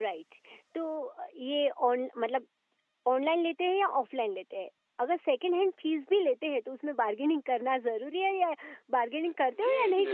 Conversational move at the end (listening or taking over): taking over